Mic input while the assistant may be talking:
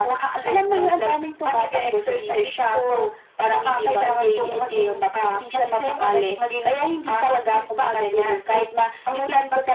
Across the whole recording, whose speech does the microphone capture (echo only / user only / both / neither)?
echo only